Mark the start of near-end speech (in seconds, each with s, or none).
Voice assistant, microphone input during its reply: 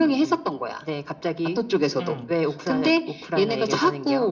2.0 s